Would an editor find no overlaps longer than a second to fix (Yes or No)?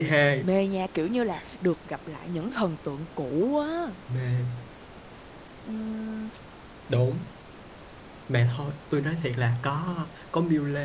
Yes